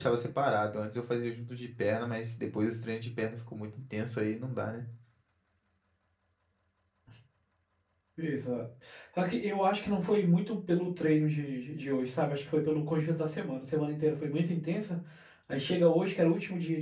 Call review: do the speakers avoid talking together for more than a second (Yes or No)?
Yes